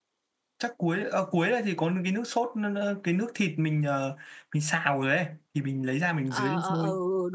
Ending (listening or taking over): taking over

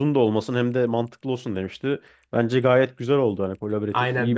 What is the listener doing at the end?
taking over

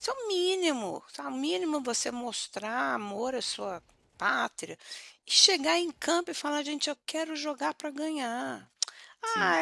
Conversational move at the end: listening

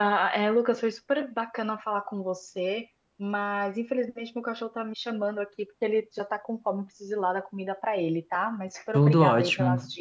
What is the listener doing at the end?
taking over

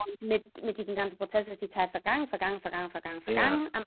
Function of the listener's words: listening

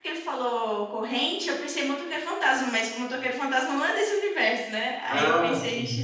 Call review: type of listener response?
listening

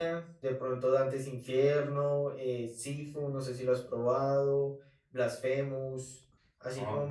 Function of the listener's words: listening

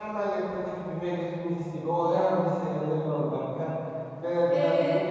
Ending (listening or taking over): taking over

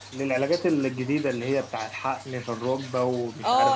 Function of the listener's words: taking over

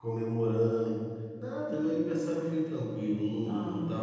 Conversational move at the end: listening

